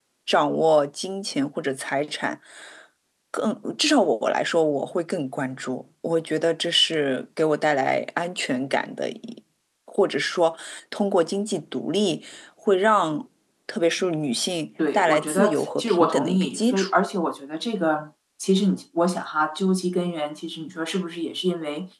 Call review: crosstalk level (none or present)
present